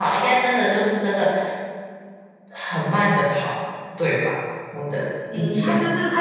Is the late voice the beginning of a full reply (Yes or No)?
Yes